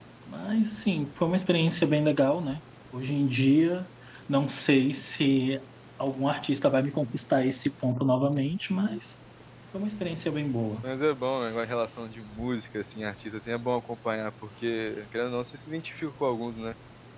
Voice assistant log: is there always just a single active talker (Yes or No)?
Yes